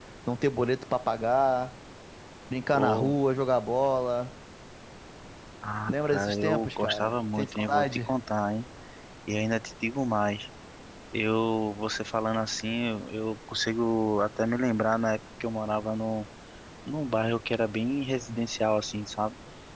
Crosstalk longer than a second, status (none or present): present